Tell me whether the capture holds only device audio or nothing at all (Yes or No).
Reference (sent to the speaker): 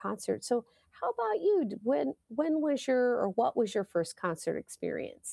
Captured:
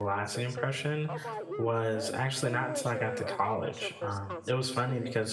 No